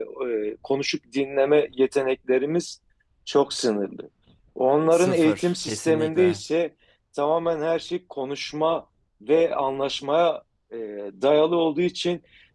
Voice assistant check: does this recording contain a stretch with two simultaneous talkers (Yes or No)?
Yes